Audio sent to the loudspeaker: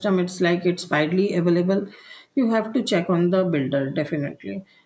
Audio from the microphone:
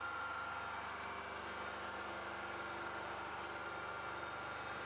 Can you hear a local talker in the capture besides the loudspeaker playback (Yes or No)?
No